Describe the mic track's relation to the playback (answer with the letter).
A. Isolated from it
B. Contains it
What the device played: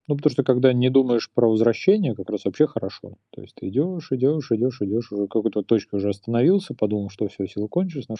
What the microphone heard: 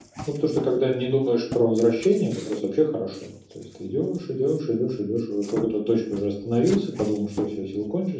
B